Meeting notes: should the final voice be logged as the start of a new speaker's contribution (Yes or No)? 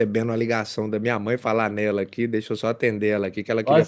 Yes